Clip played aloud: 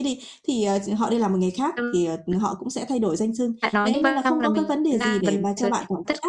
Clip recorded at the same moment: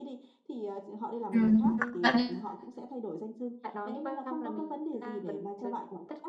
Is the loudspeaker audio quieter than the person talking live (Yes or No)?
Yes